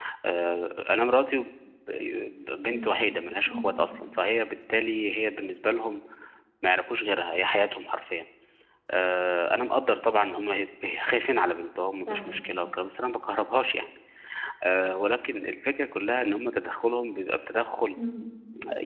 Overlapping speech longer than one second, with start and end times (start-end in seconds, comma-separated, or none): none